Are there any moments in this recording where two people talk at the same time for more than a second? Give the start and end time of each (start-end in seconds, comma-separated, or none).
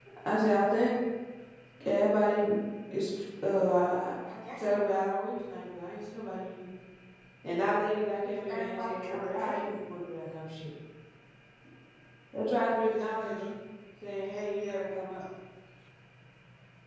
8.5-9.8